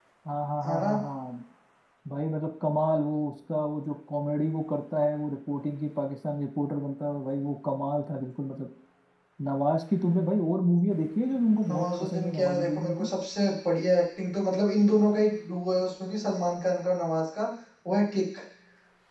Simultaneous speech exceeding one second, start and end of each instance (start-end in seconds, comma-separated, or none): 11.7-13.1